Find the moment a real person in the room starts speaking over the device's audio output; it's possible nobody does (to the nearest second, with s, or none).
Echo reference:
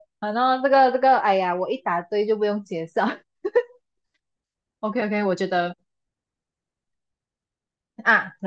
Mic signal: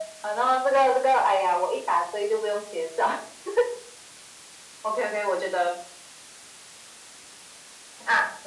none